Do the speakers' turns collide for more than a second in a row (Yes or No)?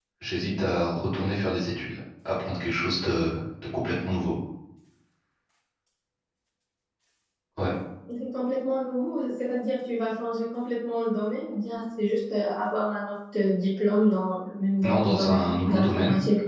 Yes